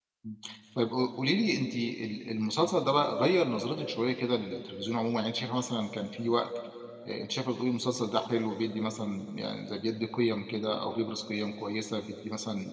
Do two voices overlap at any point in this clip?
No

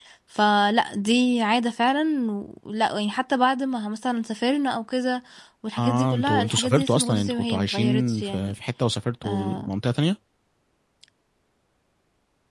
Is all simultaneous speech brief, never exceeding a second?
No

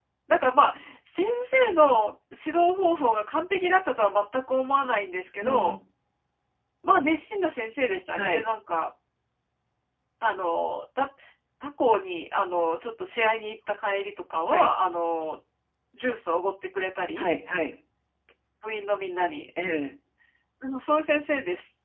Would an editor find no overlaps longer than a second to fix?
Yes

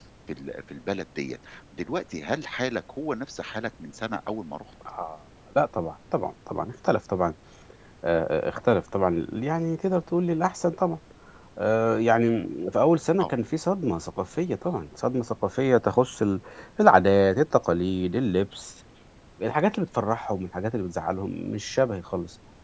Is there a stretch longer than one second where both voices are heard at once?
No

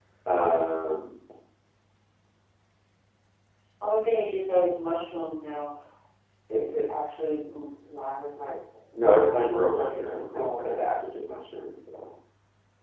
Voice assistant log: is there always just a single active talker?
No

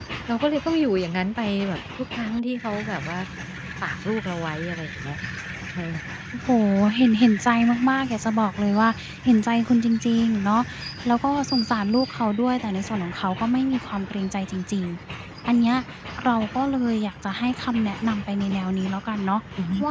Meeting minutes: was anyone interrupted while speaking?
No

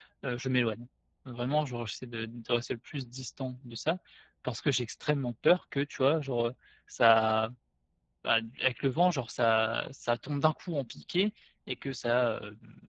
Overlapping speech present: No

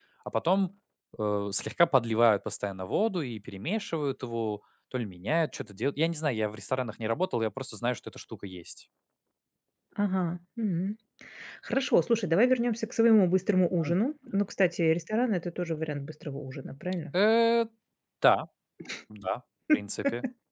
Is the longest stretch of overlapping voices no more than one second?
Yes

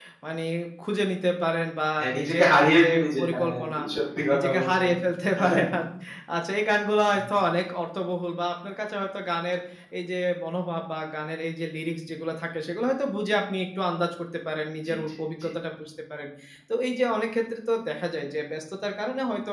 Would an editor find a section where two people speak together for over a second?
Yes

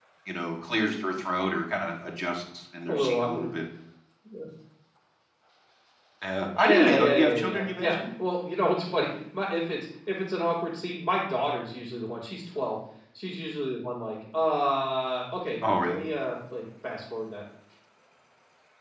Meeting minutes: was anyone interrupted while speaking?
Yes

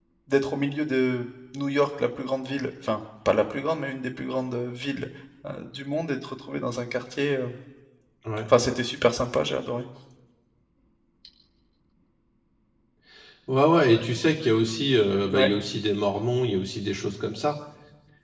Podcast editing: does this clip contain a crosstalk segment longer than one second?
No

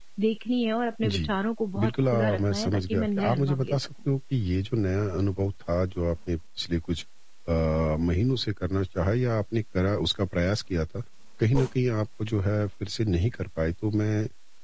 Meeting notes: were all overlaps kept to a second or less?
No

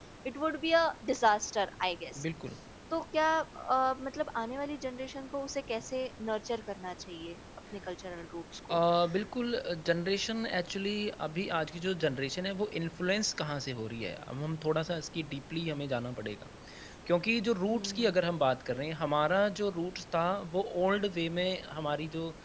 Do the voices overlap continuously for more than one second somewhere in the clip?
No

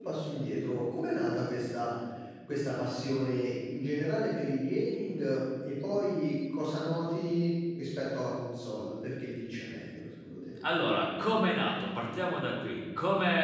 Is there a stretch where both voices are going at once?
No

